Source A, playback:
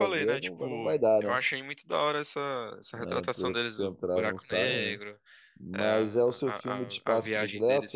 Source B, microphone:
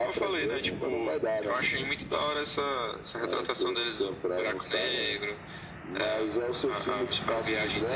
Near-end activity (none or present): none